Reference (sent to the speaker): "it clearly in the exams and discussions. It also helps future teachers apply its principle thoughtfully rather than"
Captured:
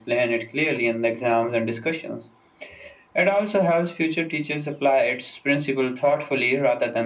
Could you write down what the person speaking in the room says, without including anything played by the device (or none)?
none